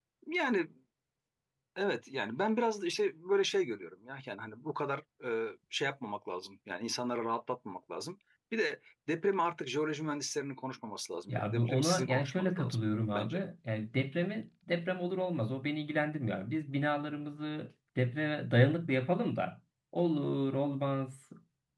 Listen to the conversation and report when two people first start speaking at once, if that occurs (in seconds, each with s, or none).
11.3 s